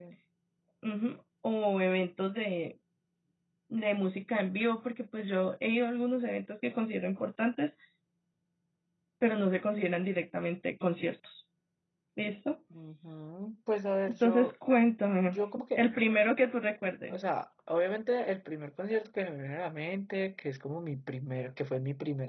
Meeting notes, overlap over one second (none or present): none